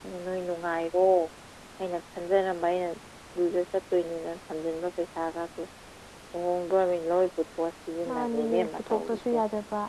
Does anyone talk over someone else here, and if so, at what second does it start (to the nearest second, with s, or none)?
8 s